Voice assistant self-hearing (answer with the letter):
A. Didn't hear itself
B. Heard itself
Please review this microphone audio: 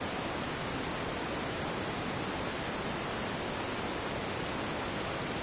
A